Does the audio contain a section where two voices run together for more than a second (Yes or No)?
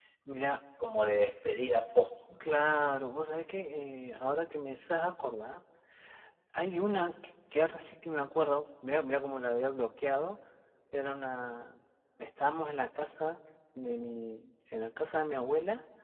No